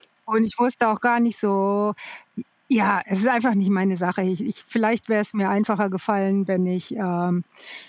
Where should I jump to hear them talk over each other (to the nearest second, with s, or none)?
none